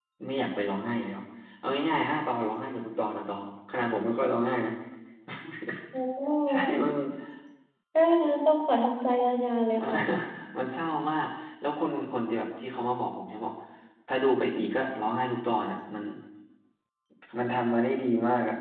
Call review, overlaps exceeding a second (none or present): none